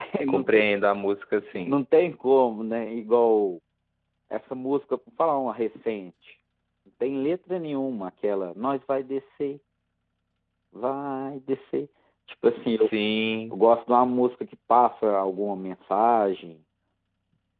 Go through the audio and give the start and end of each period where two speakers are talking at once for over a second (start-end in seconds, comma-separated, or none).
none